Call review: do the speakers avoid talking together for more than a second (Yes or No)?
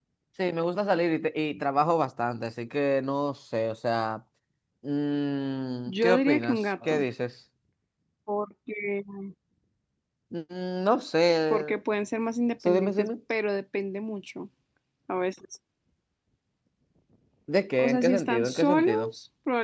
No